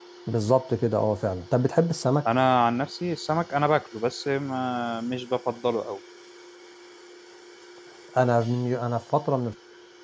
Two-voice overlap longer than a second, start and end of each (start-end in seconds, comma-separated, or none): none